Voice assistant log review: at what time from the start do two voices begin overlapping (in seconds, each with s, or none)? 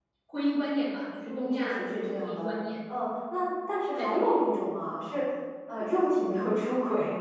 1.2 s